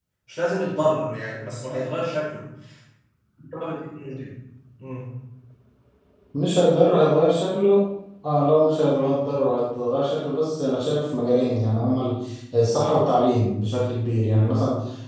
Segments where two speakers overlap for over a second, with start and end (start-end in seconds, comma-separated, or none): none